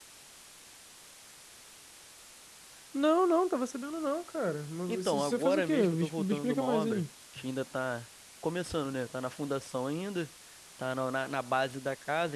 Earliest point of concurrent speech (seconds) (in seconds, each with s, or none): 4.9 s